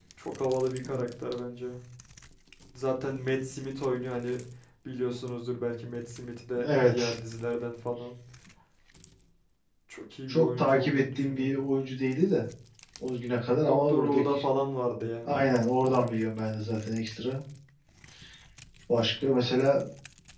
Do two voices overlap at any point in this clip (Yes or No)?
Yes